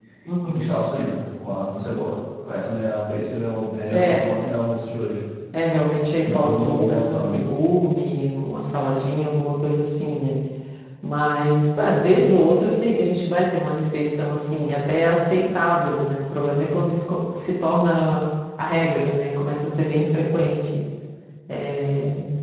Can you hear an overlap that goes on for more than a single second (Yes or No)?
Yes